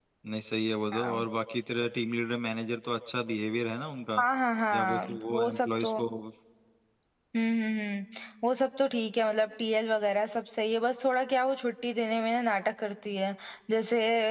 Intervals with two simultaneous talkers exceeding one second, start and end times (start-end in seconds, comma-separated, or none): 4.7-6.0